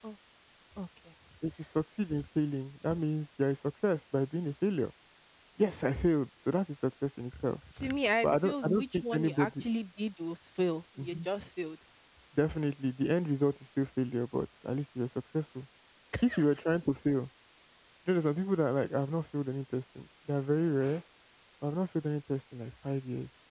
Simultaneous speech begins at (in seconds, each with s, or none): 8.2 s